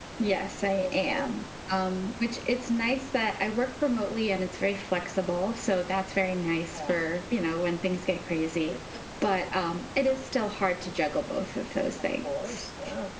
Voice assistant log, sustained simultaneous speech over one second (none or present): none